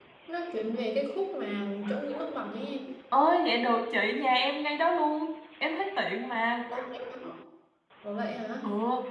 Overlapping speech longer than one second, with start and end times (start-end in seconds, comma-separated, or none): none